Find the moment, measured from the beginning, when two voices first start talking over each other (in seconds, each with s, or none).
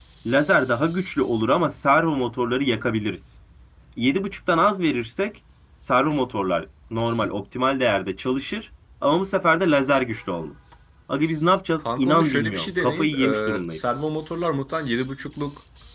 11.8 s